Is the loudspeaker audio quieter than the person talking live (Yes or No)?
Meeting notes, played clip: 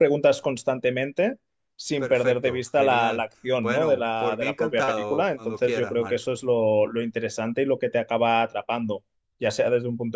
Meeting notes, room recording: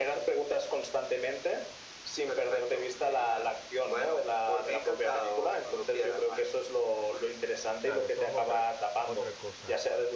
No